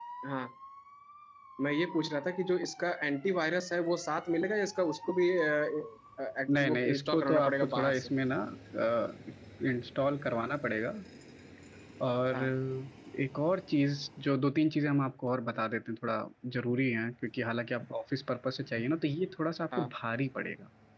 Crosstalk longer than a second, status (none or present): present